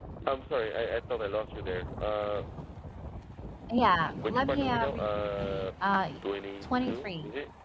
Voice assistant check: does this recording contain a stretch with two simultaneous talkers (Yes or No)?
Yes